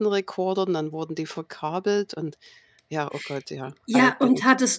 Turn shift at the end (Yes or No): Yes